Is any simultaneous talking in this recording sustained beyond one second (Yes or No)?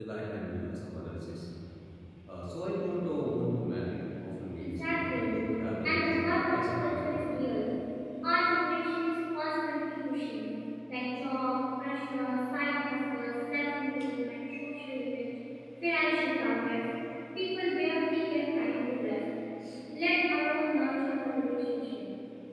Yes